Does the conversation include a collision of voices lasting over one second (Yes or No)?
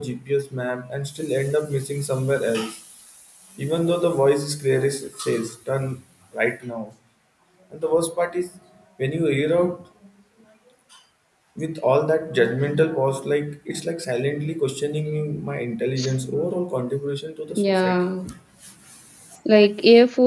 No